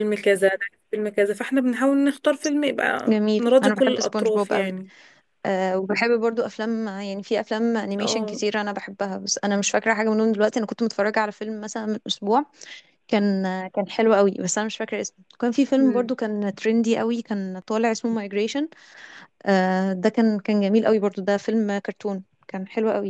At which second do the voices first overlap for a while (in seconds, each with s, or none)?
3.1 s